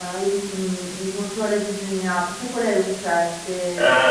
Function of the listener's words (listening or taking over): taking over